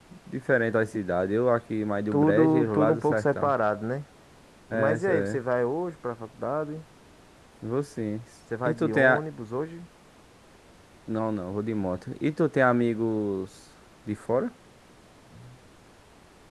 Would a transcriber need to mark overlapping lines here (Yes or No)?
Yes